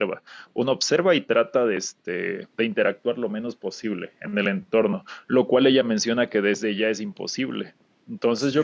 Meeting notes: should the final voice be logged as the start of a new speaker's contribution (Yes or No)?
No